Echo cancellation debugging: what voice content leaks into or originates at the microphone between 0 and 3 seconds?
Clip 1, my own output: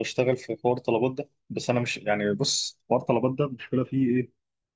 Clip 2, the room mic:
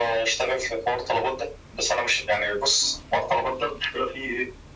echo only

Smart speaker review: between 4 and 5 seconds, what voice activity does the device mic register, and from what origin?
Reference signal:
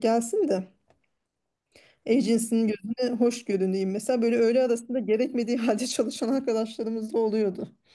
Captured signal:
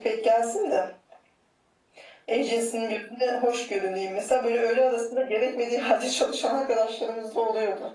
echo only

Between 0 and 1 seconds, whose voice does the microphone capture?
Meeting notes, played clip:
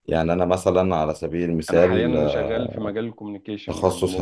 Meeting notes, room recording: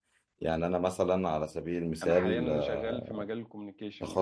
echo only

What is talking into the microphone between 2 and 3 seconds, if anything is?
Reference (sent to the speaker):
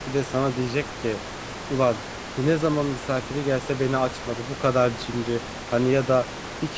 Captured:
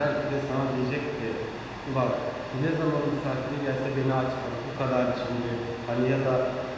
echo only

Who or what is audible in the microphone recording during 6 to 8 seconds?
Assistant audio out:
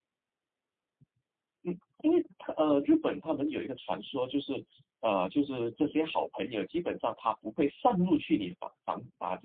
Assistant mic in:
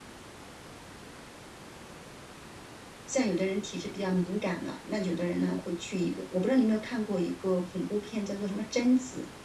user only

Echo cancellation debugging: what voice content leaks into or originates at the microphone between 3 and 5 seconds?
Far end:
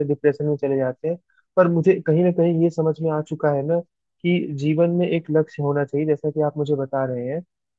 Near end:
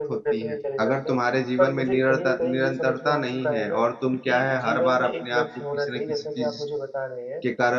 both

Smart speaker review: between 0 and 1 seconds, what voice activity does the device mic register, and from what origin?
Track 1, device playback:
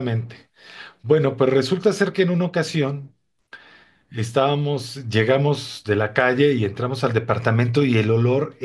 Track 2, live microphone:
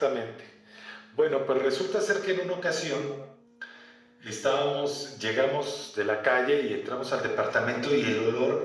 echo only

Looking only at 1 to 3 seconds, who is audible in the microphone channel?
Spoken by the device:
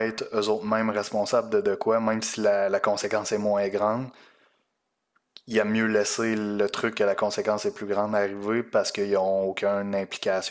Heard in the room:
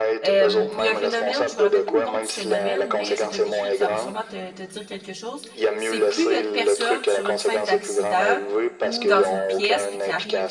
both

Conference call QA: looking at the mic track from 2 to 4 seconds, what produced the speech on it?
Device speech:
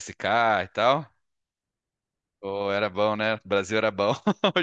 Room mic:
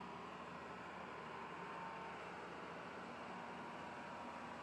neither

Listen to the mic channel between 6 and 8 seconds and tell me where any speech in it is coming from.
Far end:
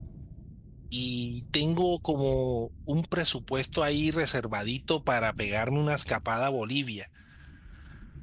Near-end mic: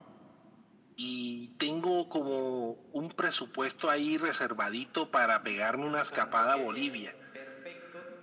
both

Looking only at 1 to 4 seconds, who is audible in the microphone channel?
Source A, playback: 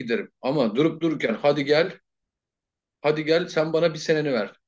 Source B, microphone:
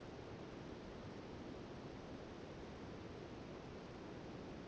neither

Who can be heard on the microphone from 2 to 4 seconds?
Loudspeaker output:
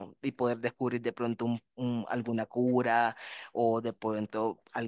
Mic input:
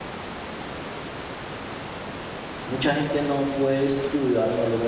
user only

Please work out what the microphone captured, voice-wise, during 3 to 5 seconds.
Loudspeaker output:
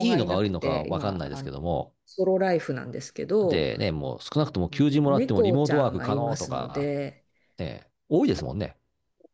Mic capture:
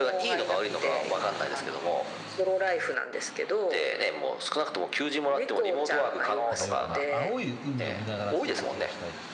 echo only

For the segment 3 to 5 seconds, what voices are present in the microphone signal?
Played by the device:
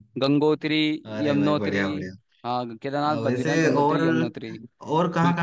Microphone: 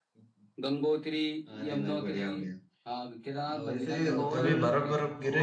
both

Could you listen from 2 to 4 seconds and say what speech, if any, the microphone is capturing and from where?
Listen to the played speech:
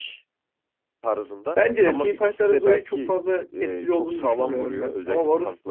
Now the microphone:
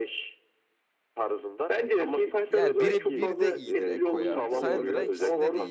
both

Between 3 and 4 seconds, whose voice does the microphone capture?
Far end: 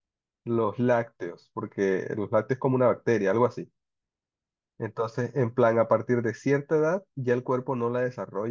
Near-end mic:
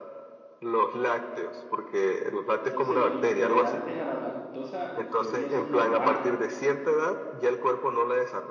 both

